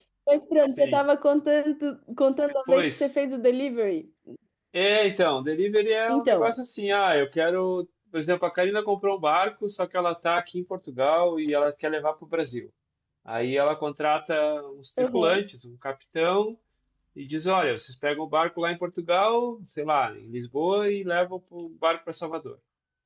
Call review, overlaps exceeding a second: none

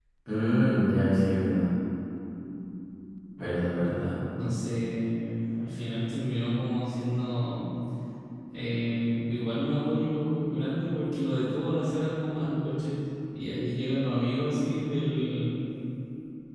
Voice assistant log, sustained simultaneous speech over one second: none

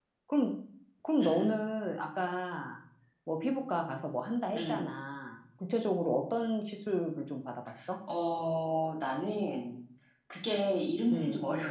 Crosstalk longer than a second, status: none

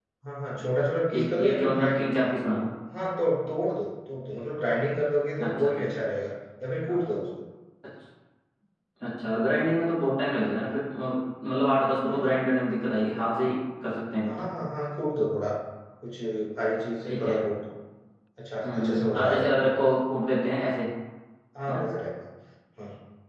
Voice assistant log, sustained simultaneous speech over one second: present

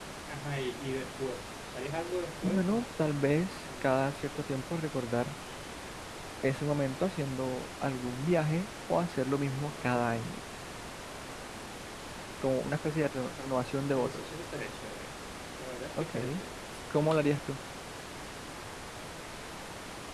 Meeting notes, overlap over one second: none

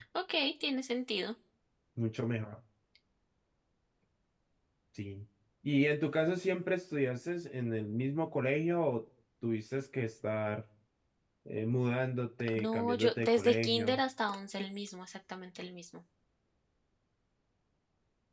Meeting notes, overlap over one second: present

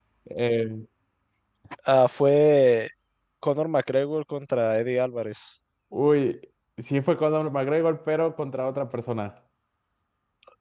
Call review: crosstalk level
none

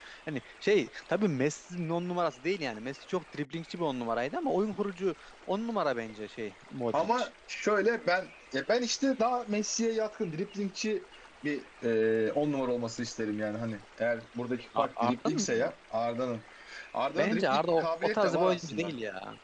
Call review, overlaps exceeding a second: present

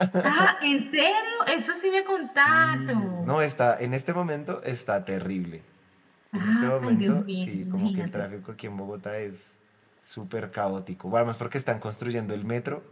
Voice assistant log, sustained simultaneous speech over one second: present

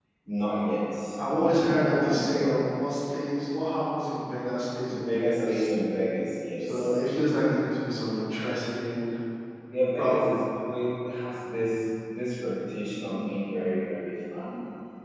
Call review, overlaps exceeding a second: present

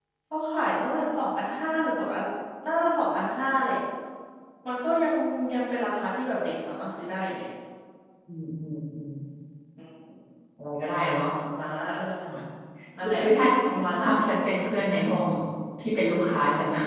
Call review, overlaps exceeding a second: none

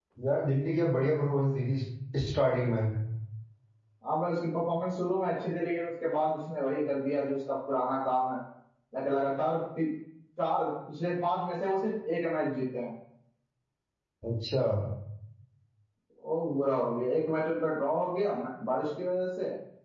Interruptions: none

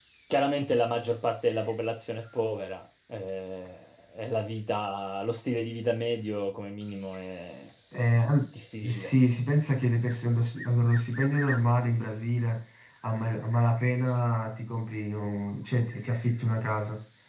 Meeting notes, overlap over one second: none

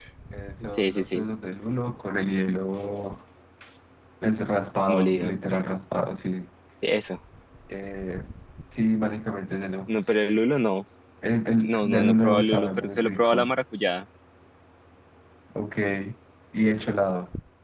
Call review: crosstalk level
present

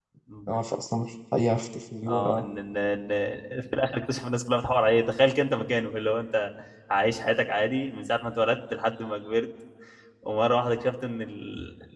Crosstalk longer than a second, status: none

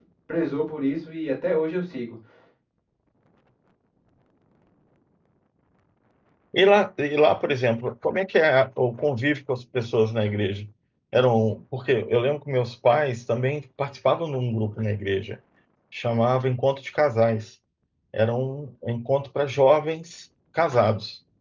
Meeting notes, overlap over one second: none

